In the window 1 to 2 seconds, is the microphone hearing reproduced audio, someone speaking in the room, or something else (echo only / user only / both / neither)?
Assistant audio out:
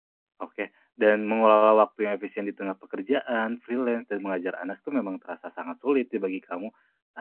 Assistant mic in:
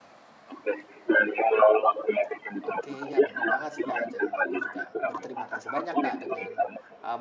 echo only